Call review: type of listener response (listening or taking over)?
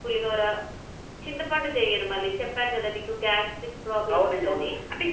taking over